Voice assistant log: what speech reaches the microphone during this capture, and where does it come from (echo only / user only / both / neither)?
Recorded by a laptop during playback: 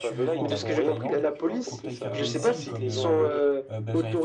both